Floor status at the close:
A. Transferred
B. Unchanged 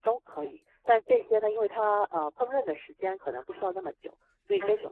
B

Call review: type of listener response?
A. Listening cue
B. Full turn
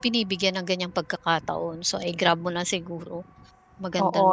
B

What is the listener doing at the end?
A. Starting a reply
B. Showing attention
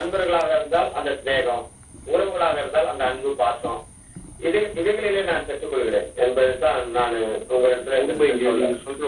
A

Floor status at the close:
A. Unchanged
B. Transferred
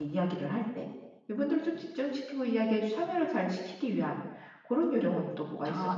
B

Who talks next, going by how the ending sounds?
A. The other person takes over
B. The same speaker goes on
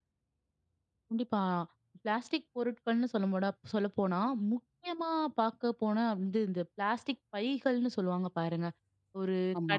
B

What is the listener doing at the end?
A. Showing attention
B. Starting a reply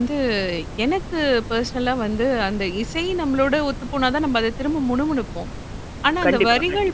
A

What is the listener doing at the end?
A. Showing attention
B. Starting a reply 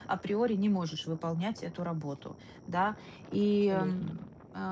A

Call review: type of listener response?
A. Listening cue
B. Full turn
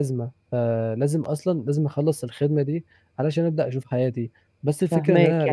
B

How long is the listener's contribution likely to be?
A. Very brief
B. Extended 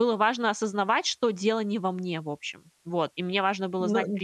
A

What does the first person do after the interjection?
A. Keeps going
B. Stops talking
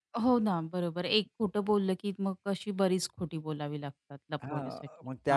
B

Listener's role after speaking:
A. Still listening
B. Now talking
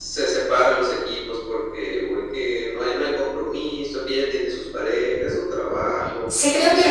B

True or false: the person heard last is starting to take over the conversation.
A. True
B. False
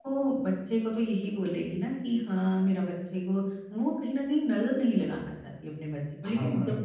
B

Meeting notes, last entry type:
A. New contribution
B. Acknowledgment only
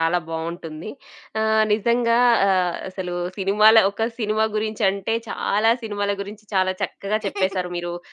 B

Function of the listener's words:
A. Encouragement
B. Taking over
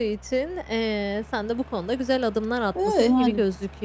A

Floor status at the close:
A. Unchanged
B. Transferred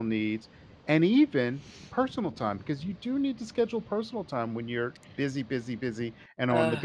B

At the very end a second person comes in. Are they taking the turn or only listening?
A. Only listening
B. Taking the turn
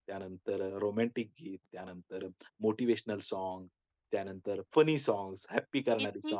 B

